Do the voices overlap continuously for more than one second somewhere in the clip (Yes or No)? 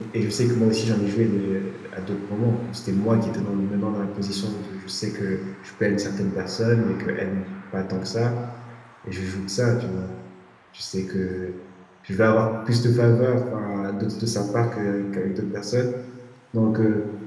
No